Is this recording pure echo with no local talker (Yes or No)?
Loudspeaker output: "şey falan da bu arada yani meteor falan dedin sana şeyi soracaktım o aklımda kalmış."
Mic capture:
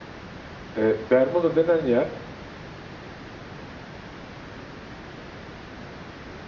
No